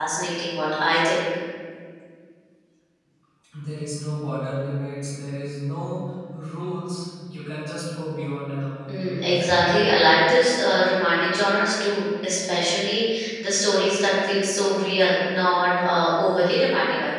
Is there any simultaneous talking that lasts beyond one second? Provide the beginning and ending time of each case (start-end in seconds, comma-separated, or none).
none